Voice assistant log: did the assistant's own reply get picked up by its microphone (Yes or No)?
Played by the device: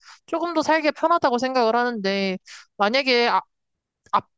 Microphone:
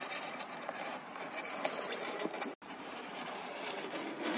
No